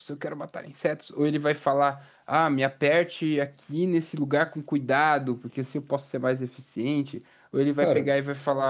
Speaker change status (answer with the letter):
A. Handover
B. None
B